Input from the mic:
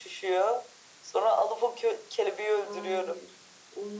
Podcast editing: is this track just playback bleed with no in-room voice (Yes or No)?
No